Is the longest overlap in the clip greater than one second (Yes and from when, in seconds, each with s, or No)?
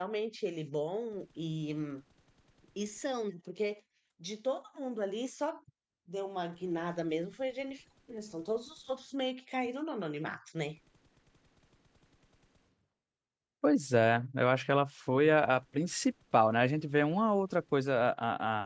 No